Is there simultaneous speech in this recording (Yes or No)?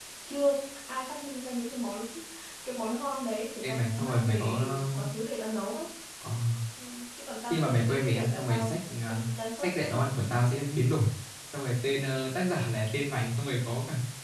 Yes